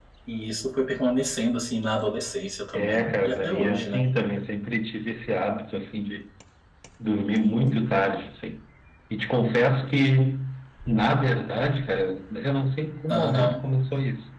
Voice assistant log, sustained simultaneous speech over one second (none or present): present